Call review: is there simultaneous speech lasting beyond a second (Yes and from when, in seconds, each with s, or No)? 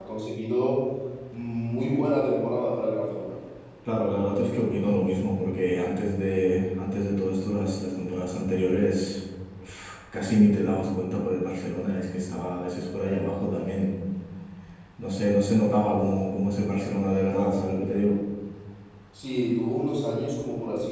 No